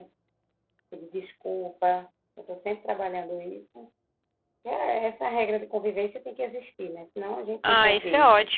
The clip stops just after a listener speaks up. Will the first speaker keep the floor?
No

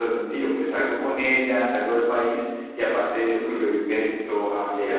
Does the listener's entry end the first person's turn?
No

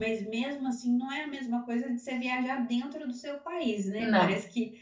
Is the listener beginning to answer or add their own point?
No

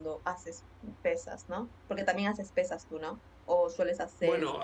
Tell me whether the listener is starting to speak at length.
Yes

